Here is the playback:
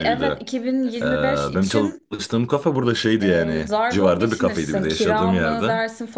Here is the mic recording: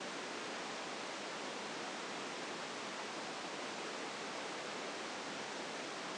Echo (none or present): none